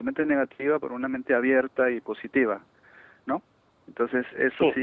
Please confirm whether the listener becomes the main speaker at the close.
No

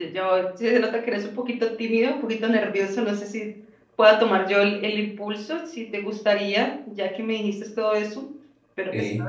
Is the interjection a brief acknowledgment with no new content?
Yes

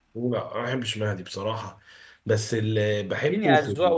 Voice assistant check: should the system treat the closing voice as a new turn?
Yes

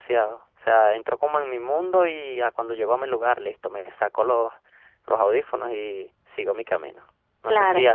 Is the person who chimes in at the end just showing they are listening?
Yes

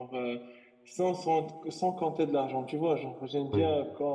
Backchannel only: Yes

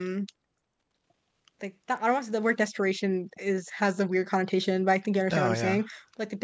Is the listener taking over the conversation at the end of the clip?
No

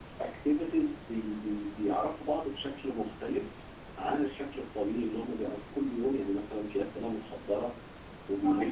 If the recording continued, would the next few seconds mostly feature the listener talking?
No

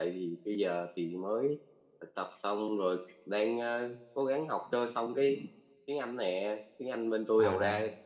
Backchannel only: Yes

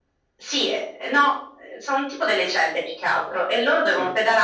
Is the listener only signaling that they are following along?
Yes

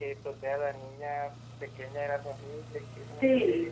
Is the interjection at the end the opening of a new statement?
Yes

